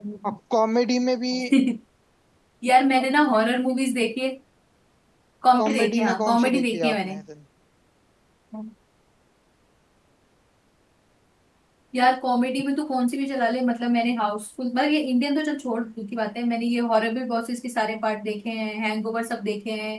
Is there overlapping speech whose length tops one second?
Yes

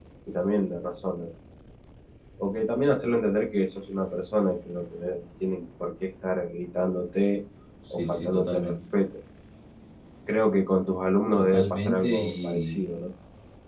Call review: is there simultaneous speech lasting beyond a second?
Yes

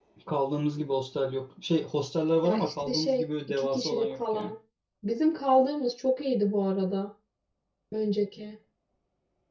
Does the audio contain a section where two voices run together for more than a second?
Yes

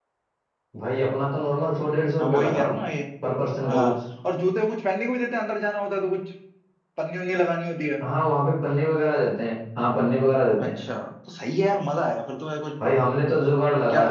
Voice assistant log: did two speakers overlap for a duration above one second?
No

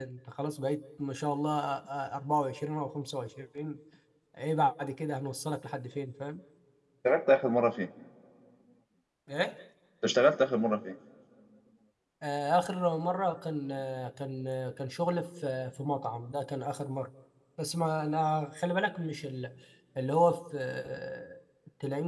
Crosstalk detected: No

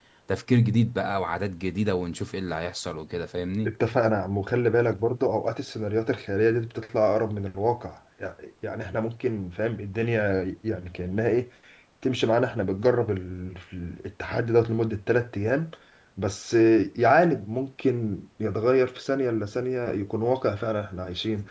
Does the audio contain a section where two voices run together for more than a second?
No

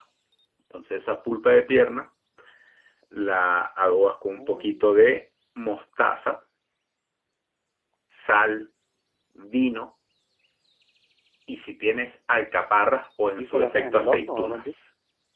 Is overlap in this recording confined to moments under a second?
No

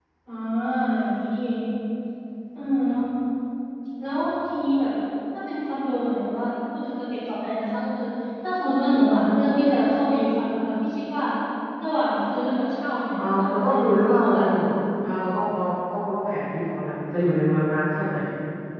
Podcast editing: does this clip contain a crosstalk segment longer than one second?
Yes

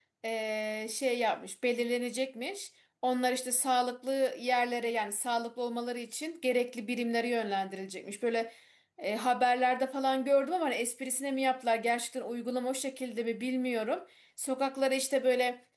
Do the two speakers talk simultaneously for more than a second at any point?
No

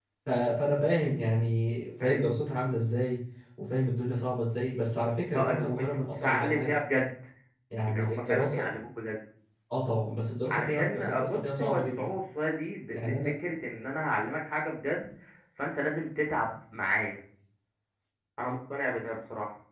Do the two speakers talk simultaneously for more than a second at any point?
Yes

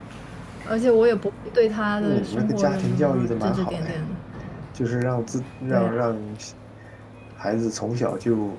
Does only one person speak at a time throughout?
No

